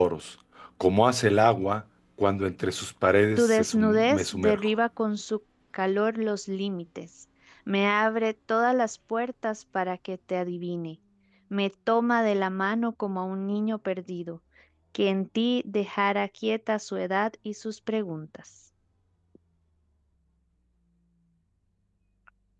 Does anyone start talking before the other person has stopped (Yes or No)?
Yes